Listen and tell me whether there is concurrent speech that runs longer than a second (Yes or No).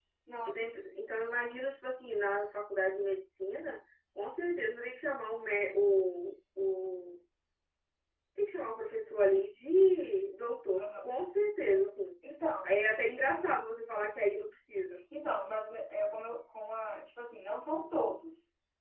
No